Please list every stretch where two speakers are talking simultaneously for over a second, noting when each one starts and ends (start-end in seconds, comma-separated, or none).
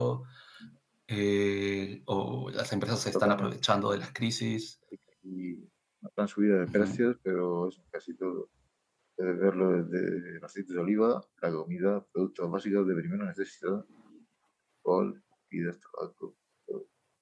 none